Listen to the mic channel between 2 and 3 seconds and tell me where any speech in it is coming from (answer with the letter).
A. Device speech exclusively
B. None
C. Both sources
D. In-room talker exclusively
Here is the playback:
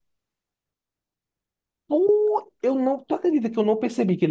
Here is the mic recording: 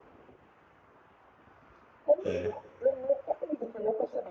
C